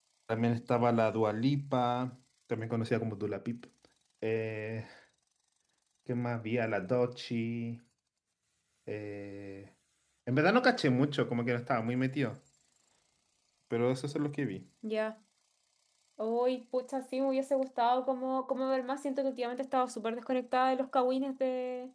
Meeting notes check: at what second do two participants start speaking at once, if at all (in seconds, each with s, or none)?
none